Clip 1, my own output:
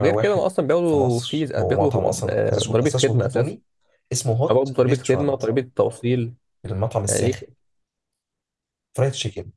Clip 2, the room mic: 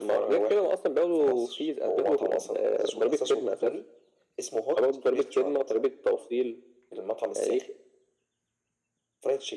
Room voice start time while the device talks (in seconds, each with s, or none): none